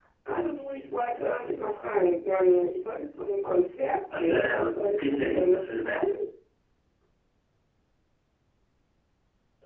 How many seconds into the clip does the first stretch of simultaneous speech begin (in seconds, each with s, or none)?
4.1 s